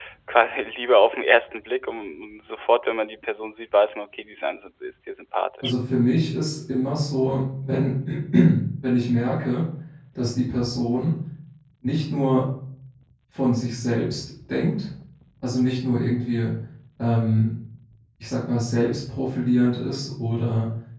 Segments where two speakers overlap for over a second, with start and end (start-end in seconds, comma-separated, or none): none